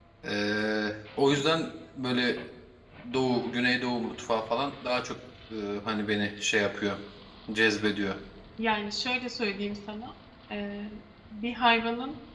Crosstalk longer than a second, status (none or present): none